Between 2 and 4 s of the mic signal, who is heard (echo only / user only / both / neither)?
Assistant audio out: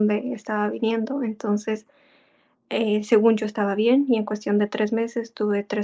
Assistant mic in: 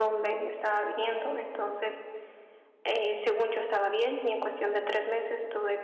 echo only